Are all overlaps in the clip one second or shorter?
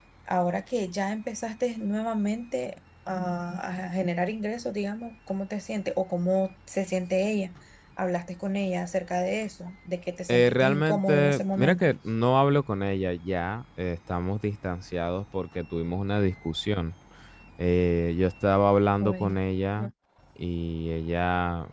No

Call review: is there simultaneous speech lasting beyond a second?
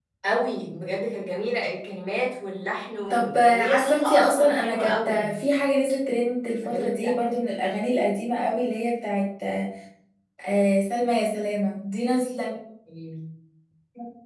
Yes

